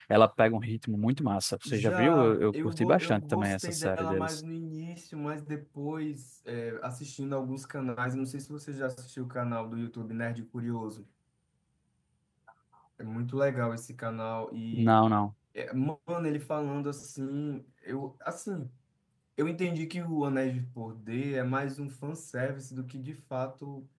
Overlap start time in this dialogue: 2 s

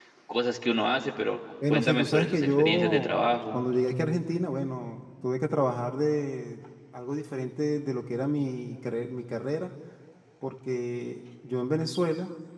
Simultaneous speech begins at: 2 s

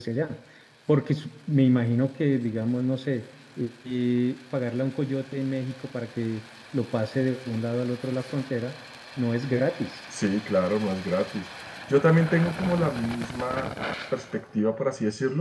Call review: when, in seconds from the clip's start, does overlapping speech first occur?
none

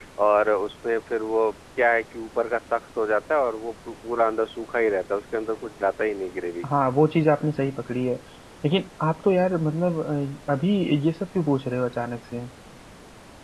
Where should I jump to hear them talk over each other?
none

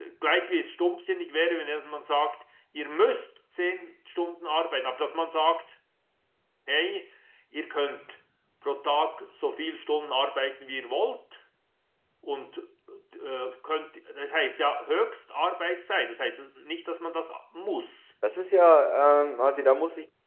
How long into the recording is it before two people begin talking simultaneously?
none

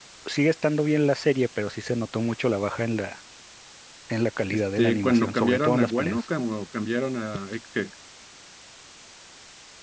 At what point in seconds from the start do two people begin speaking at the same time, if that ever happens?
5 s

